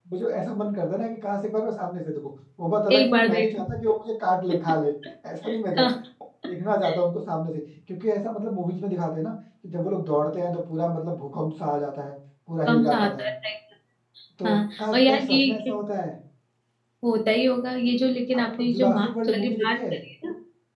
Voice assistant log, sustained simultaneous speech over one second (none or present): present